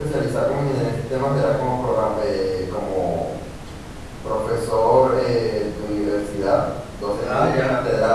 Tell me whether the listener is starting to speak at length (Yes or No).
No